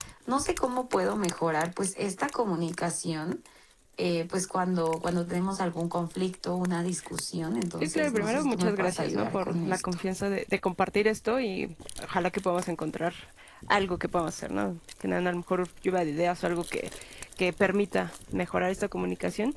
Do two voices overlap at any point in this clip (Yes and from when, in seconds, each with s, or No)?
Yes, from 7.8 s